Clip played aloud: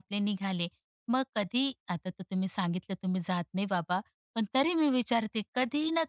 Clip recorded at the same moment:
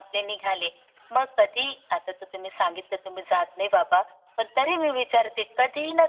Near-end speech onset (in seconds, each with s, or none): none